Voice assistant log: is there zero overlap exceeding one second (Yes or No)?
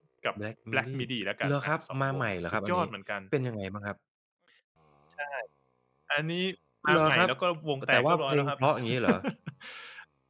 No